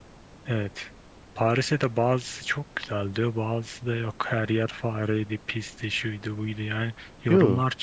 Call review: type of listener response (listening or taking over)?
listening